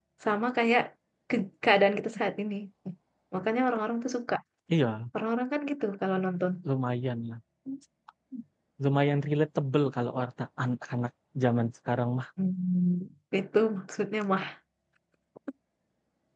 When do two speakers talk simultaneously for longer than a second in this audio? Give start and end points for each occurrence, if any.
none

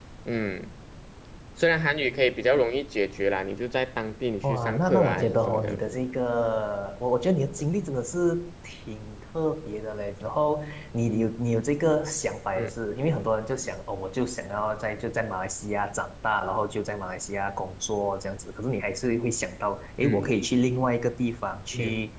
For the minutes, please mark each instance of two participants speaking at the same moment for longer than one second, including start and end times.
4.4-6.0

